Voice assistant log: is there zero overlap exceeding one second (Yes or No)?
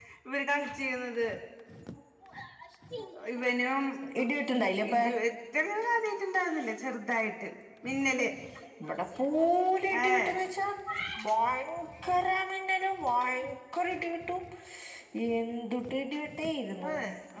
Yes